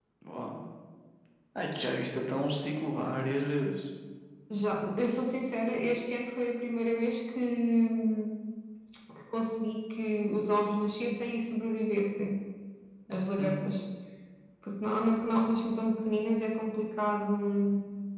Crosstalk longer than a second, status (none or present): none